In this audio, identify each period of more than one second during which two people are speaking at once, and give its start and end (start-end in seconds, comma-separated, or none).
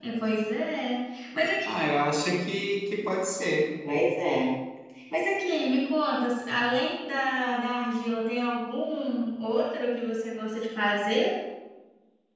none